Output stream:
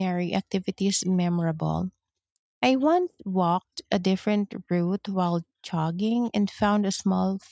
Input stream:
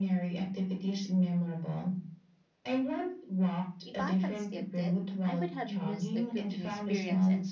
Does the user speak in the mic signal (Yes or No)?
Yes